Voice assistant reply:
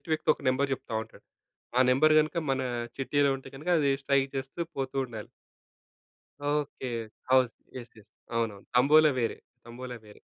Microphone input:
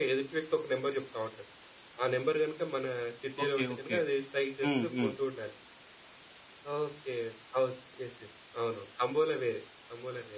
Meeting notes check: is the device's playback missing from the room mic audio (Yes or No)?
No